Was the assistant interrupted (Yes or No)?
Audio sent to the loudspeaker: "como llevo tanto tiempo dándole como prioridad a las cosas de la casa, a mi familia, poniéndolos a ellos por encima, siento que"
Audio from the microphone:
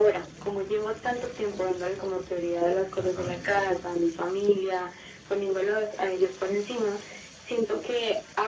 Yes